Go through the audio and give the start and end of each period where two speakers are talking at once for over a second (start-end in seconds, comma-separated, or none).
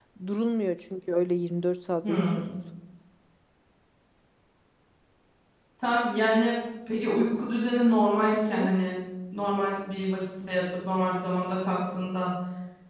none